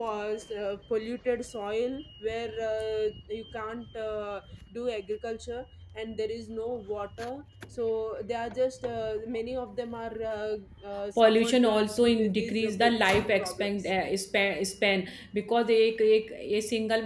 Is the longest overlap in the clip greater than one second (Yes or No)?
Yes